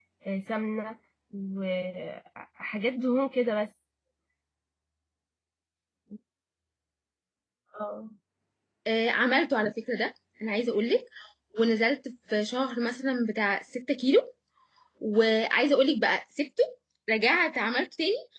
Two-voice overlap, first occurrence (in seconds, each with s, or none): none